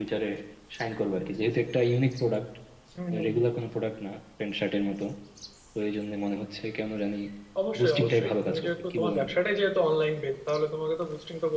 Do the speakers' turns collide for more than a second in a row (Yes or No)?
Yes